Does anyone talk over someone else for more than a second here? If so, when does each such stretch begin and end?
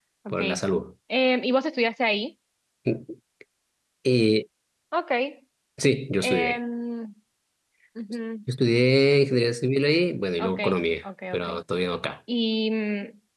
none

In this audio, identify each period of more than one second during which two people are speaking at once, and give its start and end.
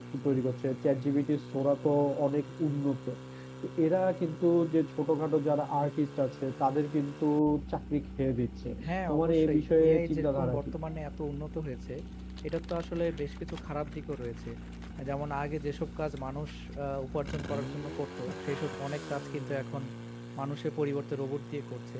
9.1-10.7

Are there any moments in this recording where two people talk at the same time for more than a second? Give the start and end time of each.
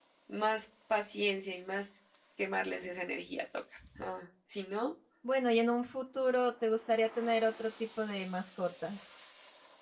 none

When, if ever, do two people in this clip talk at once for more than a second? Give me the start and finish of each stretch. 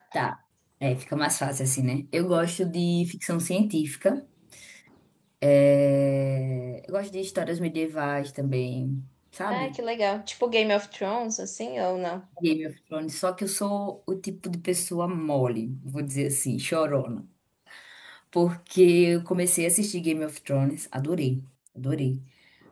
none

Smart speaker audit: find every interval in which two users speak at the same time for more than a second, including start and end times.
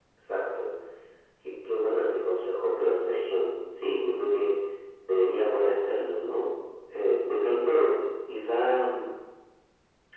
none

